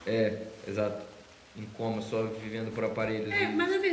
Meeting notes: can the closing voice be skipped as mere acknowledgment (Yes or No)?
No